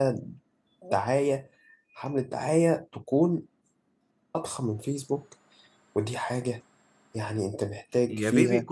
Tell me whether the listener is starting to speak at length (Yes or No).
Yes